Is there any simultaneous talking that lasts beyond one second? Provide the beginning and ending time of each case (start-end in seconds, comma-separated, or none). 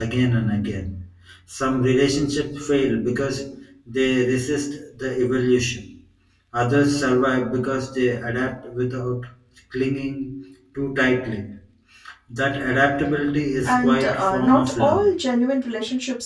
13.6-15.1